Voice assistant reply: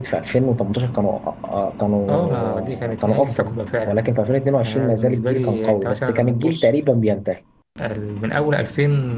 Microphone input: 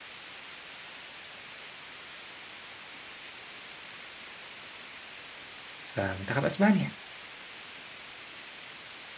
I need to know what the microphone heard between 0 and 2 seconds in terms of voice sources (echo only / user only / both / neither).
neither